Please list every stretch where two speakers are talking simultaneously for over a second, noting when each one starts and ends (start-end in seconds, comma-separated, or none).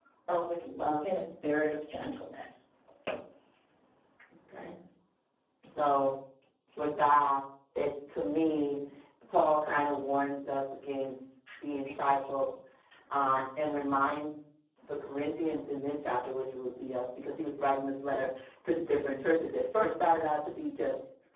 none